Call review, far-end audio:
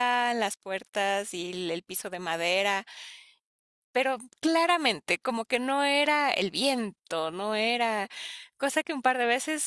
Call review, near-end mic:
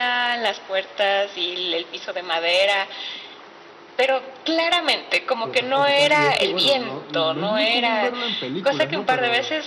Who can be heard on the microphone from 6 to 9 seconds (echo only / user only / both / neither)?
both